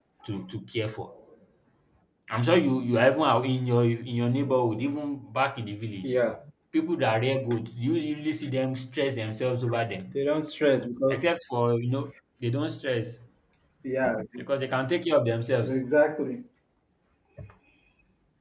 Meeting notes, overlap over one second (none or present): none